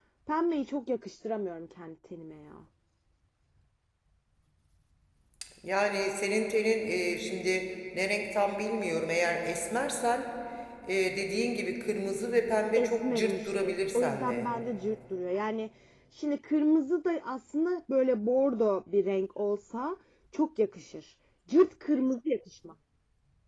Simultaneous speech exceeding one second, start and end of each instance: 12.8-14.5

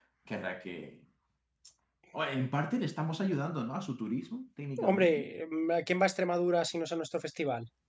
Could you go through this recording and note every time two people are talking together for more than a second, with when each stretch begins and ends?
none

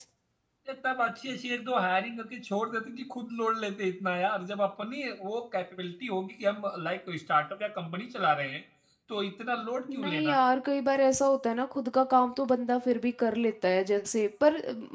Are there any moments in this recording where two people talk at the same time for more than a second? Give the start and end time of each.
none

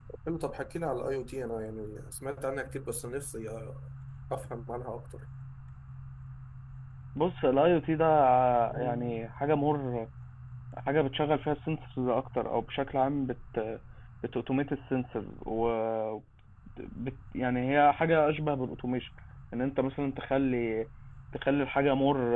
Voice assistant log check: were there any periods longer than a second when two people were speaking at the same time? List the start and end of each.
none

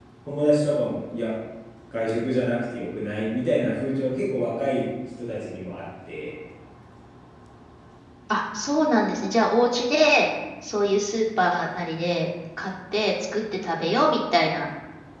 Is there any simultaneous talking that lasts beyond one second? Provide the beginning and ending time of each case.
none

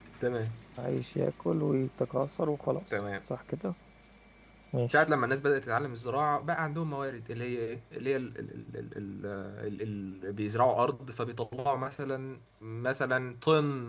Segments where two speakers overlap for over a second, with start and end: none

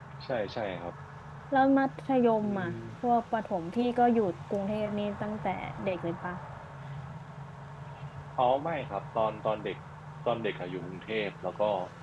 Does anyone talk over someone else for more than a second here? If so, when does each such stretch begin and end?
none

